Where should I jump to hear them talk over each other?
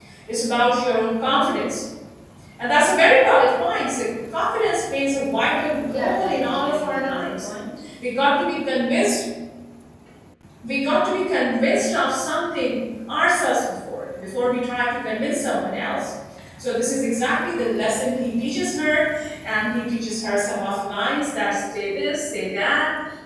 5.8 s

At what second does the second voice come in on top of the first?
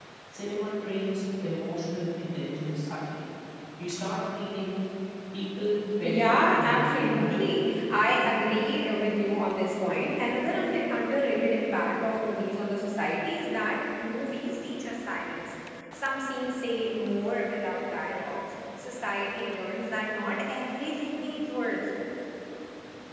6.0 s

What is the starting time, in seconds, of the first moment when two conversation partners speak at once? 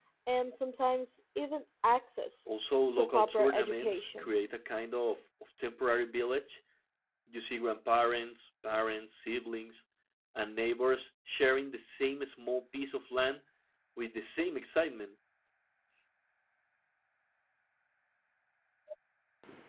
2.9 s

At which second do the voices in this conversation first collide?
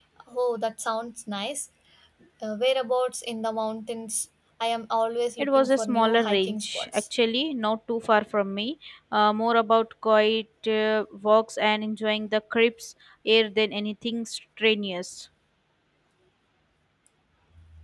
5.4 s

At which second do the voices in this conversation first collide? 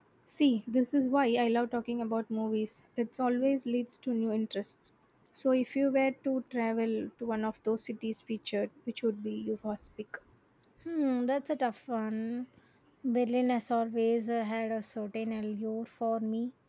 none

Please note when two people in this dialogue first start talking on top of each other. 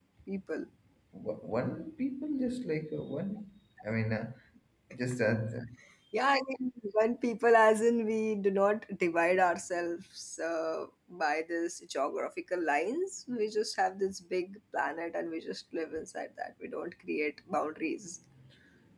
none

